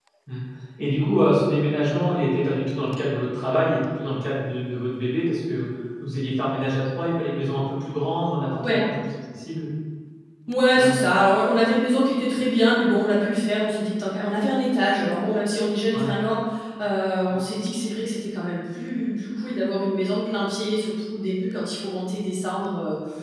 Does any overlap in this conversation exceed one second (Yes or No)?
No